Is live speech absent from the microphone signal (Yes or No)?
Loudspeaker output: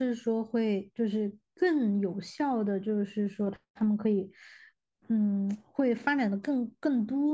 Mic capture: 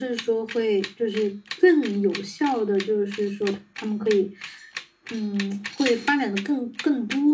Yes